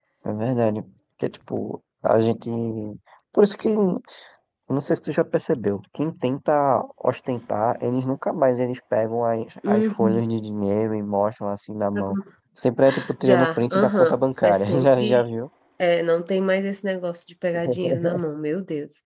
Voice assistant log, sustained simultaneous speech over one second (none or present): present